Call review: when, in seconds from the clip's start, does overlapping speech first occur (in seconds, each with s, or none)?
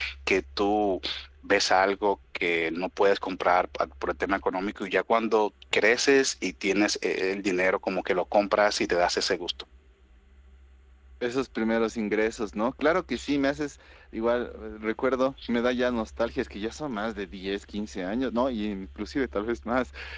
none